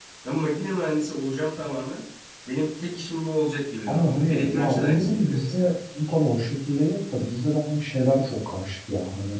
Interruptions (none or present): present